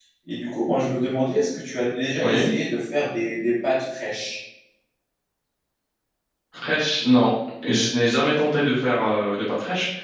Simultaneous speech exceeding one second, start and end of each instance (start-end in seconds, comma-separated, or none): none